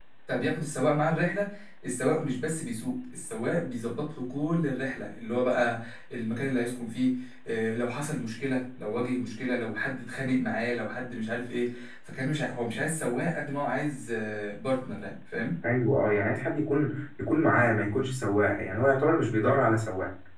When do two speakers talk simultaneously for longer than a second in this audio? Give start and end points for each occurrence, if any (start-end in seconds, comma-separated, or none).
none